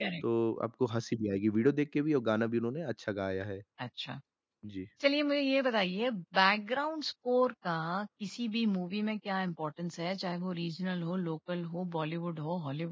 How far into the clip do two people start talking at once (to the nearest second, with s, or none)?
none